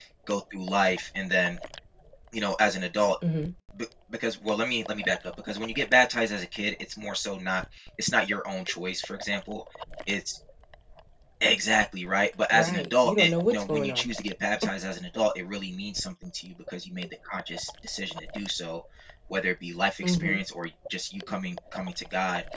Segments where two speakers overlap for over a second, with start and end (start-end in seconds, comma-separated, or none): 12.5-14.1